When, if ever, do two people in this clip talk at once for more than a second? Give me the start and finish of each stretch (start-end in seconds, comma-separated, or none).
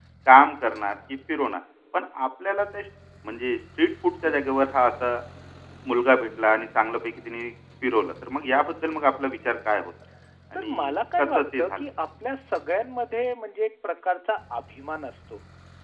10.6-11.8